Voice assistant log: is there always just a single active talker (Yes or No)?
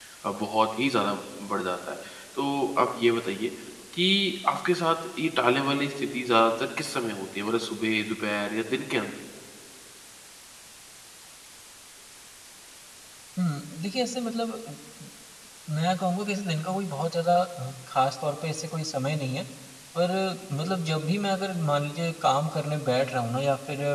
Yes